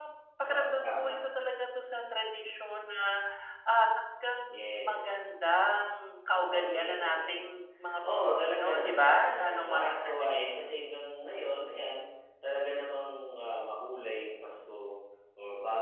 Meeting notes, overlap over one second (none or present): present